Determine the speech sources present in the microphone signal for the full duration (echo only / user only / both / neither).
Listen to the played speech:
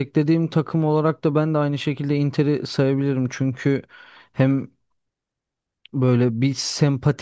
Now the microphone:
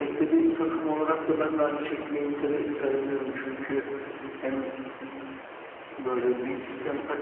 echo only